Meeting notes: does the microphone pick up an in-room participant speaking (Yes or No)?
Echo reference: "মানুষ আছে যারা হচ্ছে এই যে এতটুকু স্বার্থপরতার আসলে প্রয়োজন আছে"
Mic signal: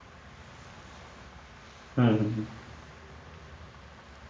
Yes